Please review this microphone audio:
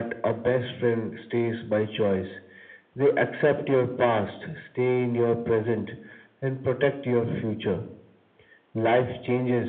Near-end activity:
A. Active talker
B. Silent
B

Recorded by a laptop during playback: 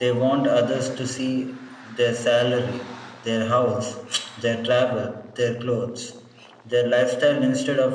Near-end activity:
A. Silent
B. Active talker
A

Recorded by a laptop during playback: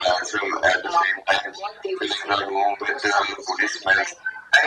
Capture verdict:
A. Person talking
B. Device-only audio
B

